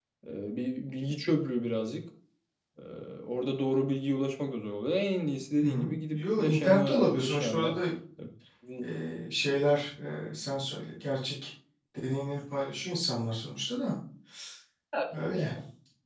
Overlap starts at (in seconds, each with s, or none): 5.6 s